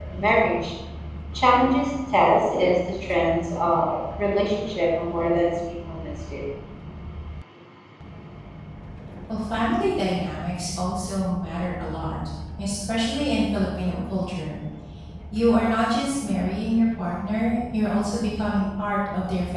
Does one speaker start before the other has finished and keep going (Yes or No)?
No